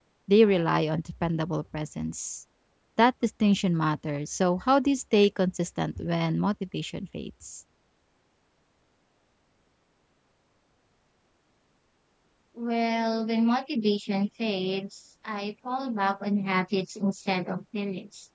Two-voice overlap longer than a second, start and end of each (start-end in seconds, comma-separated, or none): none